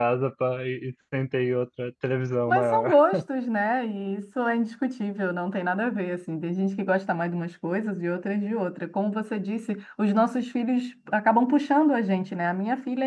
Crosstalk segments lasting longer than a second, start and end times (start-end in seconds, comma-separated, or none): none